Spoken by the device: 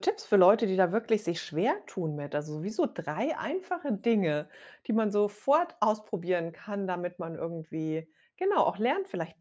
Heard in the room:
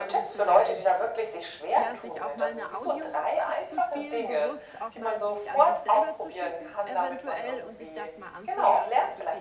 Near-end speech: present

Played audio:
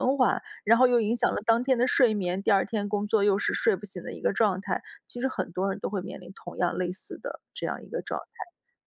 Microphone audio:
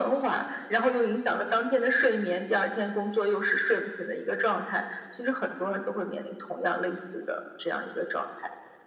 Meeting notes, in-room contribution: none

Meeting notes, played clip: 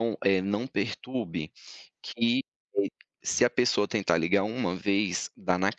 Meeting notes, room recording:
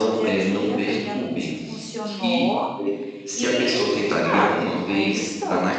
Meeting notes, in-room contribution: present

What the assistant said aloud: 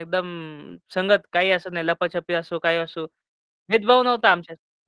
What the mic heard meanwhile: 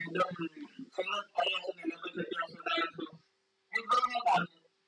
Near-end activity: none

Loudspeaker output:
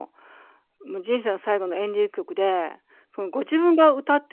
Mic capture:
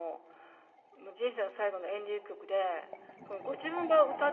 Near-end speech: none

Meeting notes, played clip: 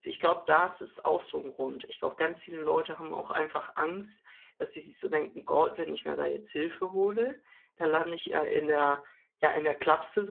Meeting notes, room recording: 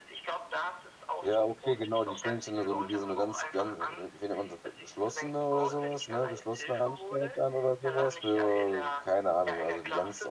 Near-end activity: present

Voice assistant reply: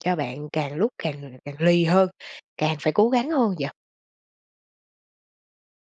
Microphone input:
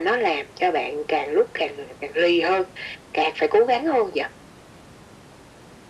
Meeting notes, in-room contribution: none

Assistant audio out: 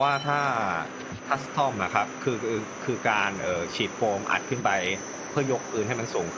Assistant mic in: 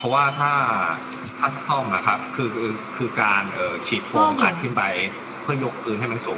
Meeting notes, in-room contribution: present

